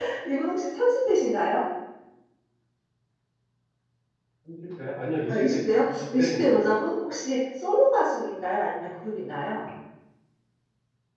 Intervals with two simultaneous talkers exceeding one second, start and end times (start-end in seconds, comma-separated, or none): 5.3-6.6